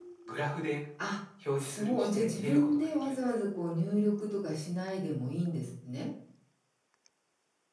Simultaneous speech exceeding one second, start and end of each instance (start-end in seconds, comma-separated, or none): 1.6-3.3